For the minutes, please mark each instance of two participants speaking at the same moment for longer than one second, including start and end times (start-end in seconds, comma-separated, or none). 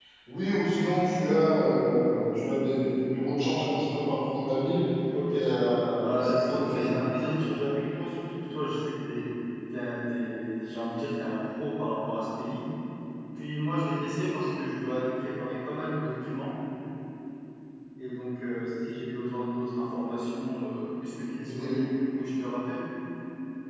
5.3-7.0